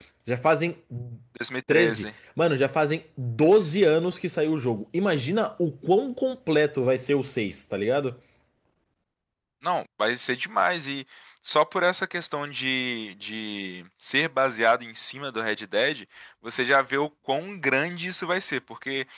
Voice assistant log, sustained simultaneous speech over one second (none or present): none